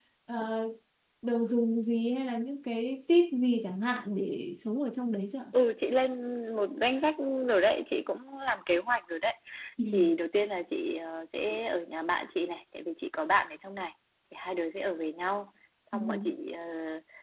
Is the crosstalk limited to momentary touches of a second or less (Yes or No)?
Yes